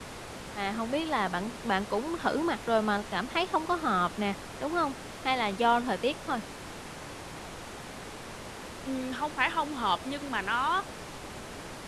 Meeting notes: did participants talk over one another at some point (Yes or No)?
No